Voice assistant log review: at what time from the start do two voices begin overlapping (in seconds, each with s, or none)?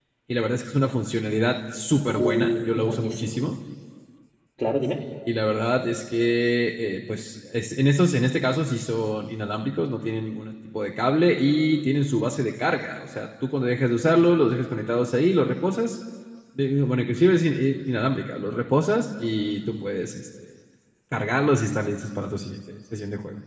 2.1 s